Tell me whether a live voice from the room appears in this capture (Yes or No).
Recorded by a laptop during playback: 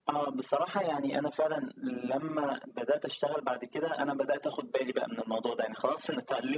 No